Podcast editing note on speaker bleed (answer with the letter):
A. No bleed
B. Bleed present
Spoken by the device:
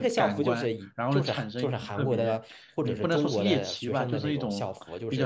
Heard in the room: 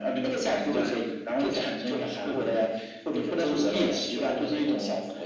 B